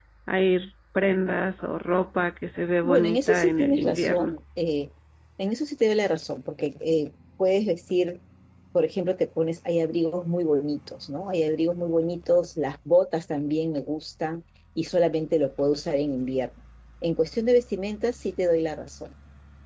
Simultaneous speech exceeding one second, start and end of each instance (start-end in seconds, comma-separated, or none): 2.8-4.3